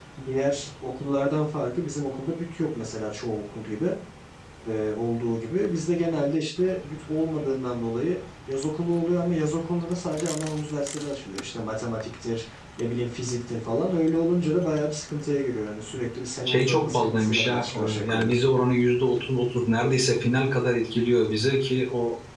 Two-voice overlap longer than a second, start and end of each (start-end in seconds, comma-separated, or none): 16.5-18.5